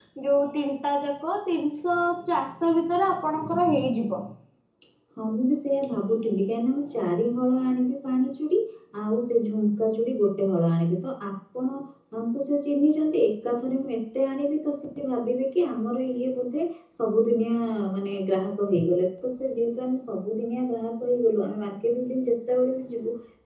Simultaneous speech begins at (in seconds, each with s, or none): none